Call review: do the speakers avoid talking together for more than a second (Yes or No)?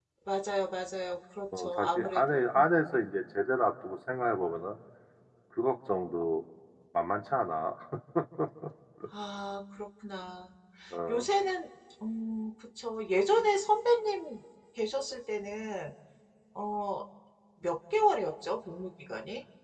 No